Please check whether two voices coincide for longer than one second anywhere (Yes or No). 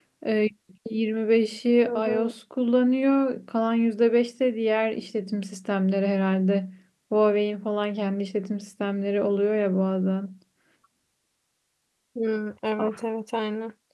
No